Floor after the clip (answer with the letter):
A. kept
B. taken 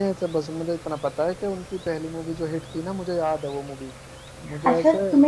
B